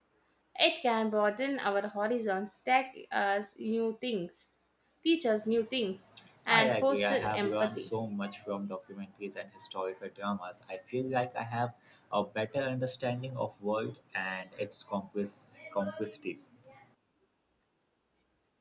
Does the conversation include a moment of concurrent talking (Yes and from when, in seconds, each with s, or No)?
Yes, from 6.5 s